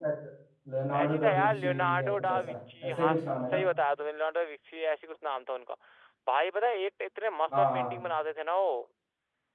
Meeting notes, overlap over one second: present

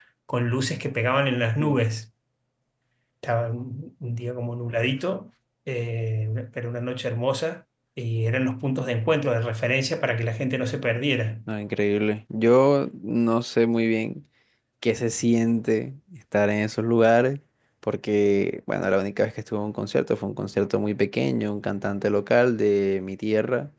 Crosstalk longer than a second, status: none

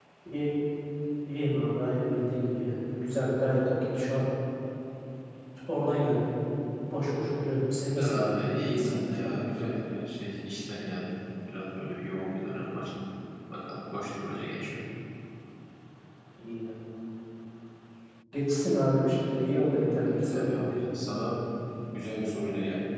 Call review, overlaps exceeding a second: present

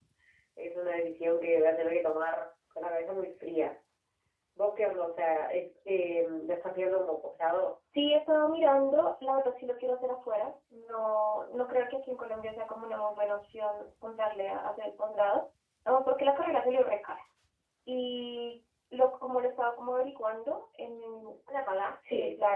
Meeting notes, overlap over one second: none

